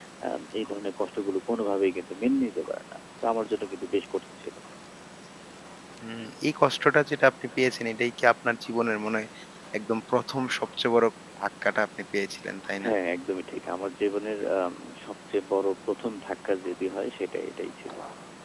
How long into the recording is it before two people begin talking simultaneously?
none

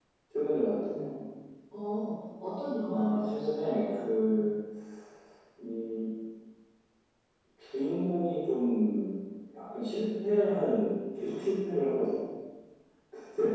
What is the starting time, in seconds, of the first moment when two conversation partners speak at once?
3 s

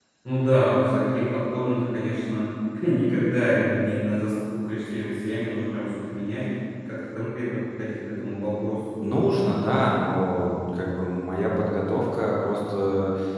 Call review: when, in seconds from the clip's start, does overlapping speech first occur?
none

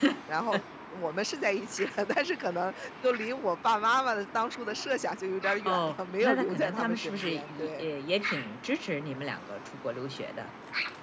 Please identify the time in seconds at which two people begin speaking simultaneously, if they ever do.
6 s

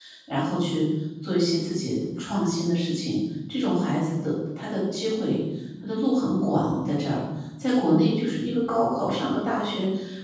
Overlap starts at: none

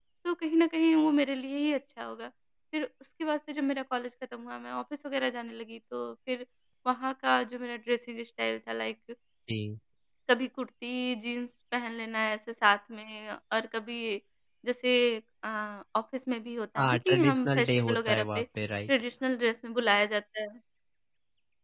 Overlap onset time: 17 s

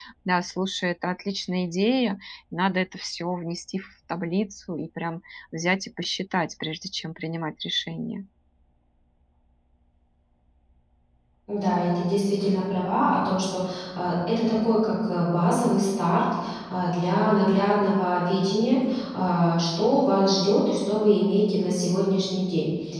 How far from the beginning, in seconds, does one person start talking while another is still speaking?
none

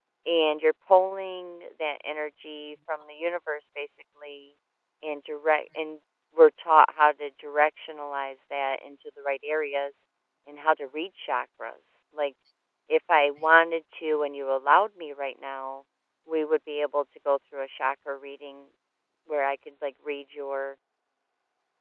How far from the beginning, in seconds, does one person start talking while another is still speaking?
none

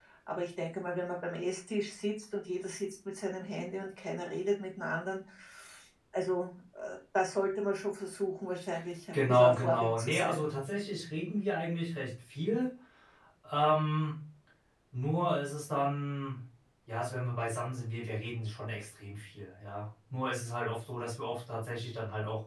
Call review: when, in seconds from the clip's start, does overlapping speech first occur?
9 s

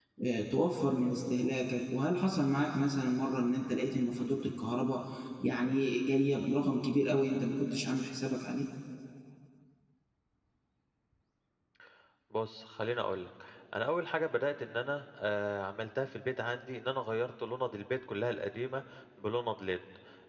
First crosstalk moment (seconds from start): none

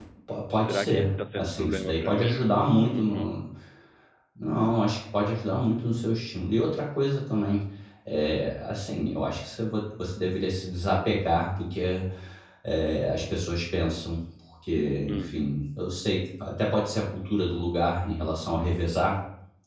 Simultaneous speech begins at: 1 s

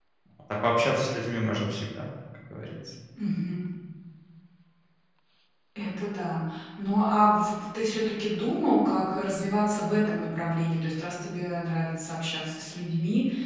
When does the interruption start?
none

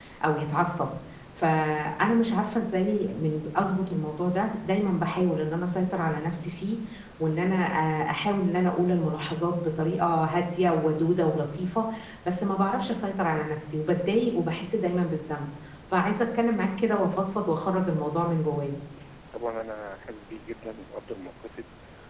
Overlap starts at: none

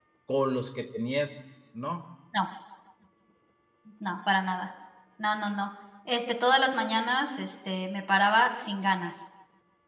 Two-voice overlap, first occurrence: none

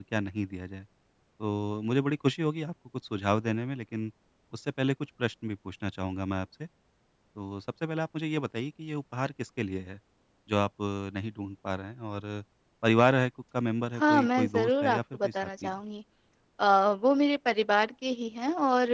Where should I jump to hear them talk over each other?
14 s

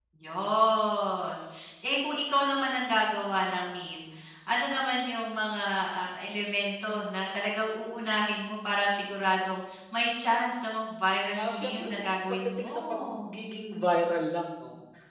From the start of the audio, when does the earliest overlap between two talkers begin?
11 s

